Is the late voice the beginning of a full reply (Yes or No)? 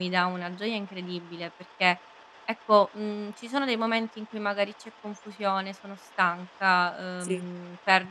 No